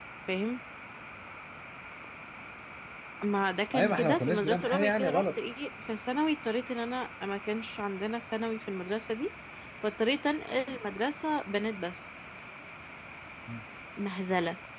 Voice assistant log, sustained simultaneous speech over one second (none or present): present